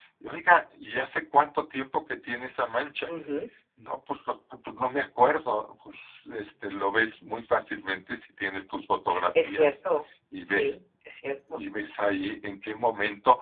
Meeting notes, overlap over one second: none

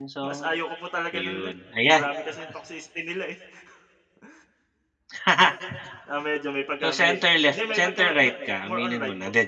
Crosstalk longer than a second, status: present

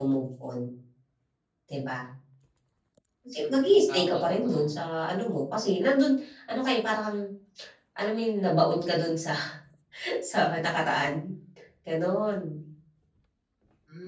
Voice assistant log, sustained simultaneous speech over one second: present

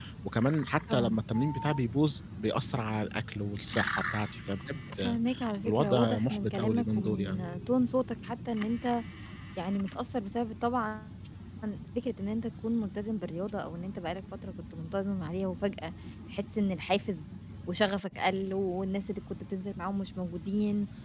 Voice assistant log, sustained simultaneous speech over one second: present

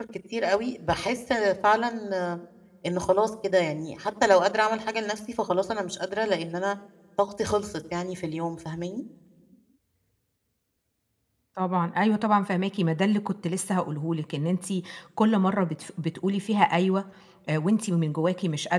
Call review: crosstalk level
none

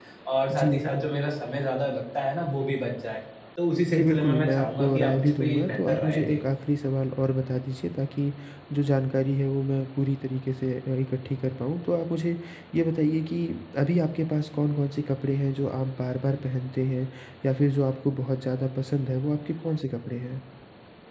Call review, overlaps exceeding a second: present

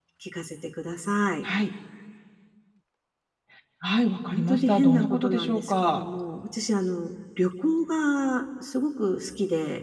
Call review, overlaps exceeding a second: present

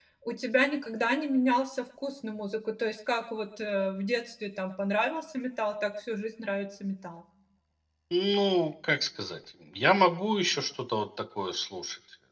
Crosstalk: none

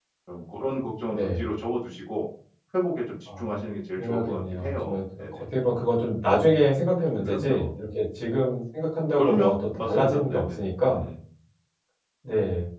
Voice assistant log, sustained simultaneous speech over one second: present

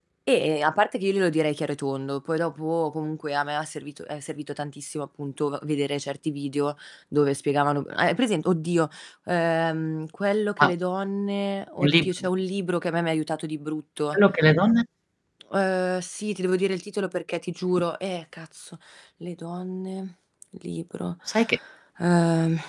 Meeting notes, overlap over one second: none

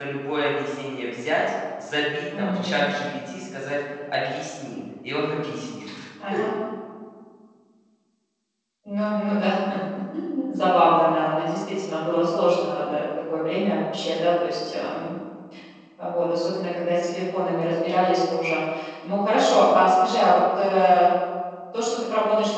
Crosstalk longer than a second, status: none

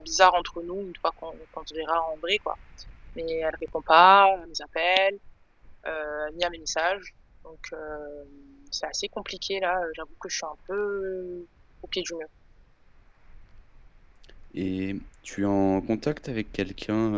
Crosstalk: none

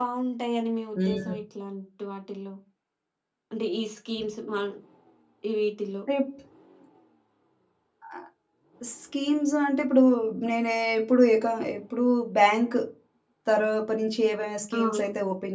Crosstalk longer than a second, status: none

